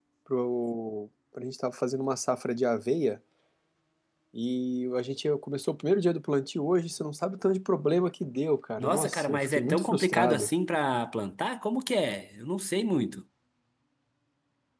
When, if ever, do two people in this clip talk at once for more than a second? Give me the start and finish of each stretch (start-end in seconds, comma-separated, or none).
8.8-10.5